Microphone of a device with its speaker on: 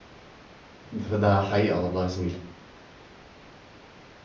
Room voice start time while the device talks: 0.9 s

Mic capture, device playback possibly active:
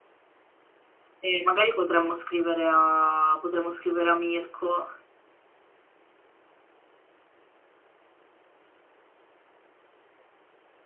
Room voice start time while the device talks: 1.2 s

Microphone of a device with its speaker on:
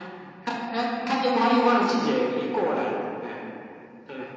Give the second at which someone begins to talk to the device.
none

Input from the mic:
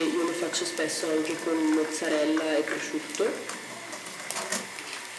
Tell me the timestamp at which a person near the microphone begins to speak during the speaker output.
none

